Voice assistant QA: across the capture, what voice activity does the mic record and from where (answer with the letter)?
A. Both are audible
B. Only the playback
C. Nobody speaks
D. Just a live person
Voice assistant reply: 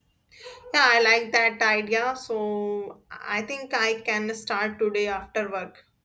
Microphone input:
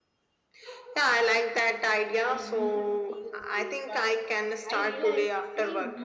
A